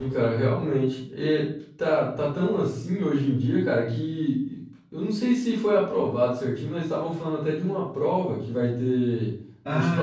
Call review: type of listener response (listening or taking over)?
taking over